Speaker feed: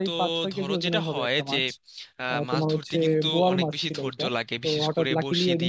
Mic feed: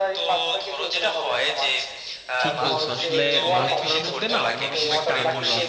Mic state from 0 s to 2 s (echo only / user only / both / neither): echo only